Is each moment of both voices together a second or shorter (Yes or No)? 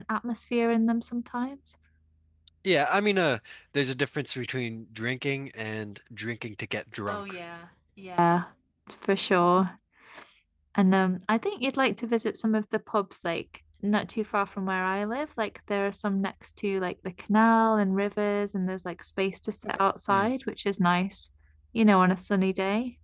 Yes